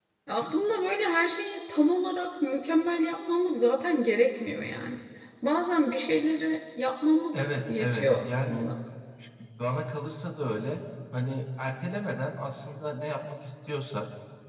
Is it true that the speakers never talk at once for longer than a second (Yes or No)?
No